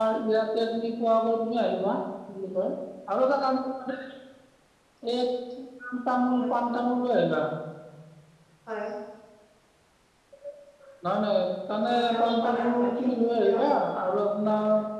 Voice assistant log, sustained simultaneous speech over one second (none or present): present